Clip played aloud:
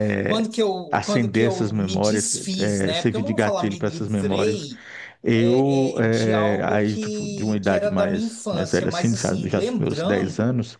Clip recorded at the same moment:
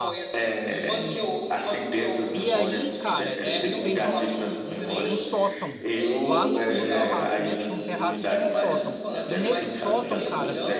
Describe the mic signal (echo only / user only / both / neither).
both